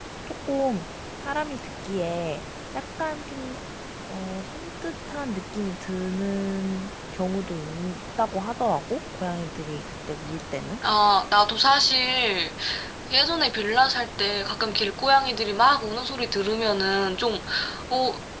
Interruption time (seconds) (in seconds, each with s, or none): none